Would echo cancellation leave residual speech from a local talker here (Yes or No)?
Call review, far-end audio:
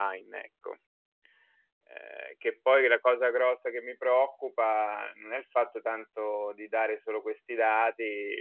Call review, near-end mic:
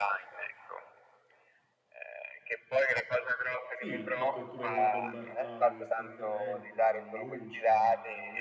Yes